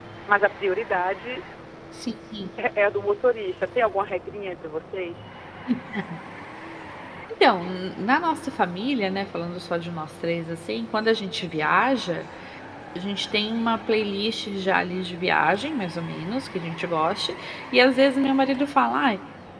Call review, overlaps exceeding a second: none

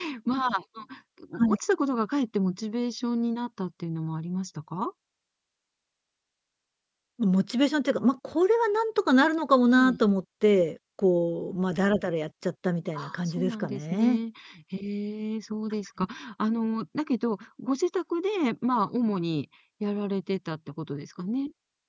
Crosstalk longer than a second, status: present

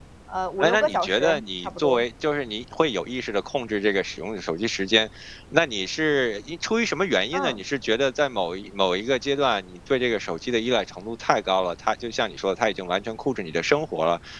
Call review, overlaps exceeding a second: present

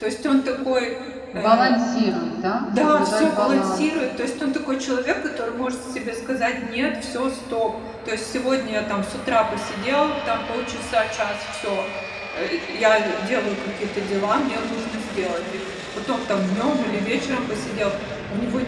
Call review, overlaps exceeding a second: present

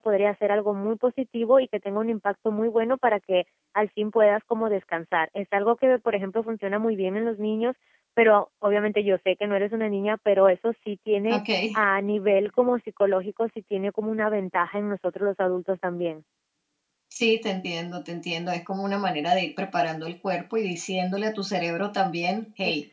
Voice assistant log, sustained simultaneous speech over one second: none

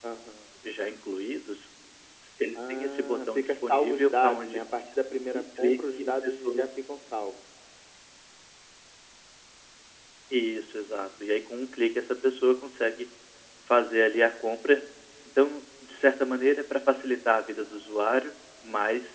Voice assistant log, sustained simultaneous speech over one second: present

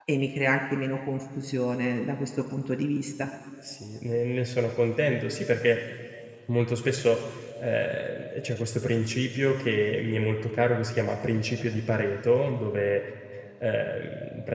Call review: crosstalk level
none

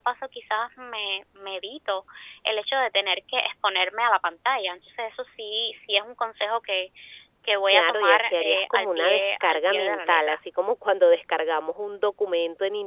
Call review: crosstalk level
present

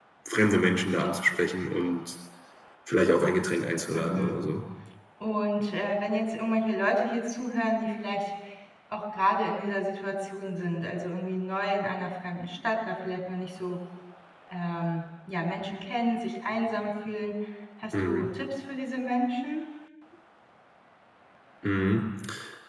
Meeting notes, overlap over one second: none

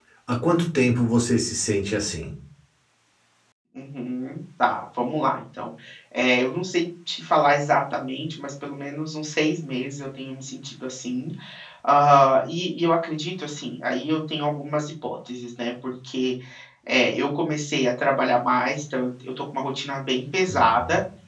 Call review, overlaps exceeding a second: none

